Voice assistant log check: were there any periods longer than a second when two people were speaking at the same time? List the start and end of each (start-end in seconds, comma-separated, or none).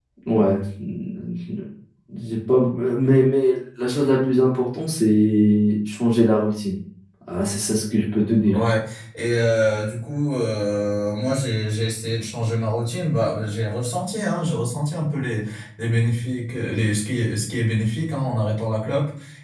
none